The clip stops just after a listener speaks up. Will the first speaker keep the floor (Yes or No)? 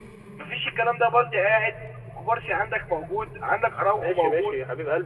No